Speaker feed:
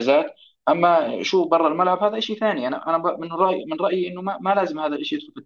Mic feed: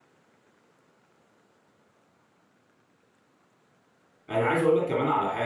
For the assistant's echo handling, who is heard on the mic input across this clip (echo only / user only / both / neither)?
user only